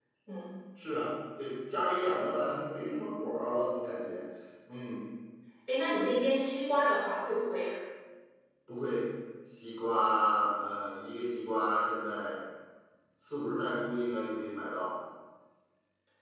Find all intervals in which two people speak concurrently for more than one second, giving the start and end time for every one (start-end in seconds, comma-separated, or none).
none